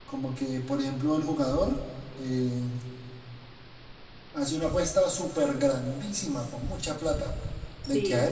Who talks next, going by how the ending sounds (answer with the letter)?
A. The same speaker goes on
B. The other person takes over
A